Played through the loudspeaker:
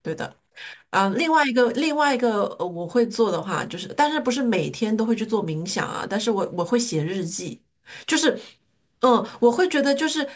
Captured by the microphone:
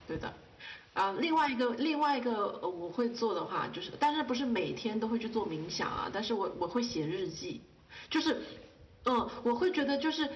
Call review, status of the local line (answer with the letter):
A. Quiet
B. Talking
A